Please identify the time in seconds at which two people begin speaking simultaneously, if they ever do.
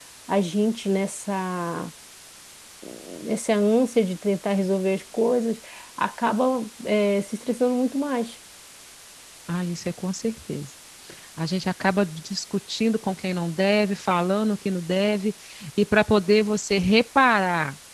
none

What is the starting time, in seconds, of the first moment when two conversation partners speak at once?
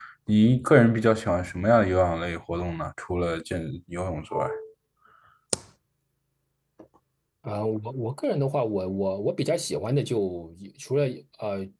none

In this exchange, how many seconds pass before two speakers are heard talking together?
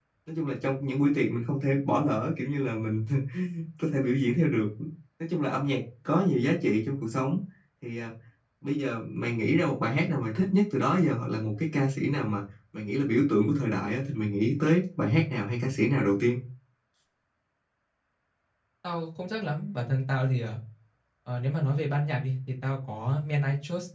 none

